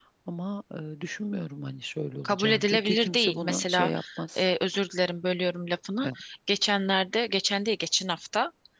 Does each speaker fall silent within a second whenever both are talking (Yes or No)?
No